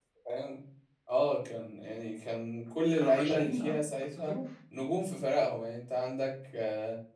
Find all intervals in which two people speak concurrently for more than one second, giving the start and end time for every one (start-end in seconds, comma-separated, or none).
3.0-4.4